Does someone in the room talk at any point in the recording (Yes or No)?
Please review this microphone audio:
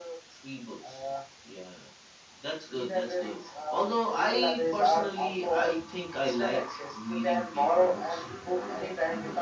No